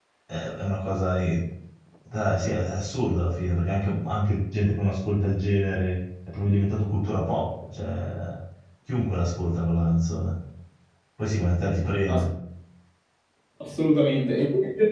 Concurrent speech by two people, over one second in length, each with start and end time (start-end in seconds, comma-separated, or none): none